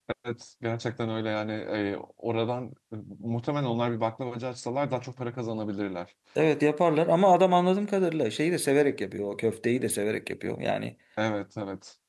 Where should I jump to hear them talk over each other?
none

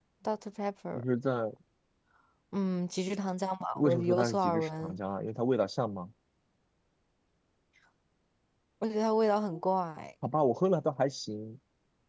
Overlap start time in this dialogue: 4 s

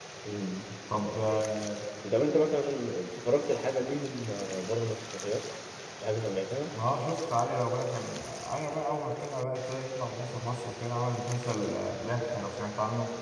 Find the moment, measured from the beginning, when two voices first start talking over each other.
none

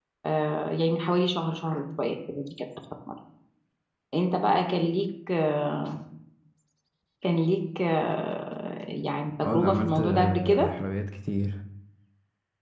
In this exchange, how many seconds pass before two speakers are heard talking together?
9 s

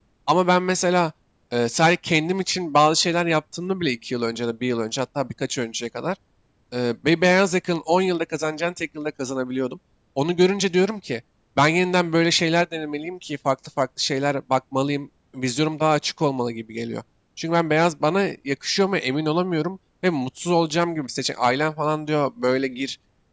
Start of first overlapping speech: none

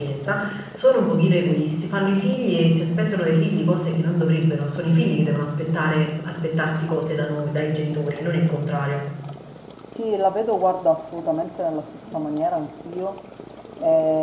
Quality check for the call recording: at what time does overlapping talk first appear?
none

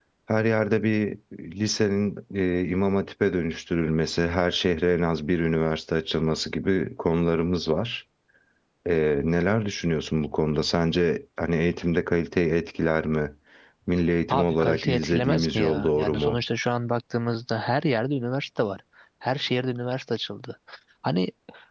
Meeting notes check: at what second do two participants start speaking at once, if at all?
14 s

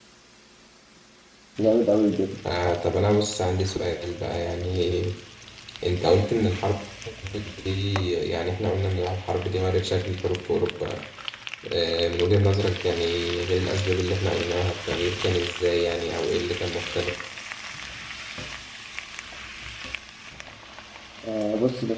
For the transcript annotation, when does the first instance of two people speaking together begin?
none

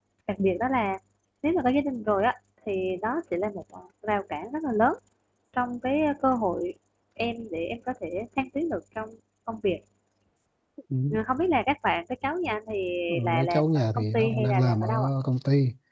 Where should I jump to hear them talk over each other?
13 s

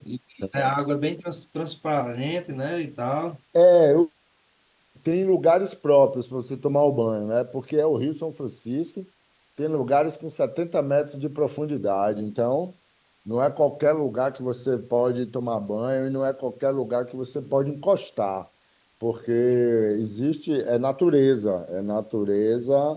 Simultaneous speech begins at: none

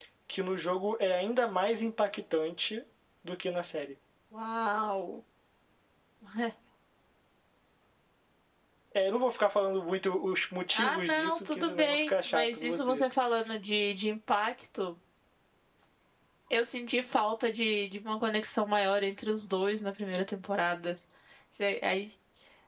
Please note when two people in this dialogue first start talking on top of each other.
11 s

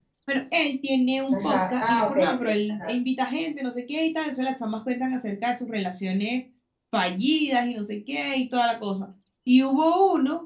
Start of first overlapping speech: 1 s

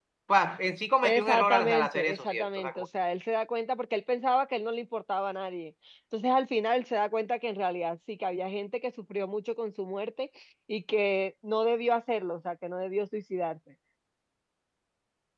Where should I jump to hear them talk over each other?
1 s

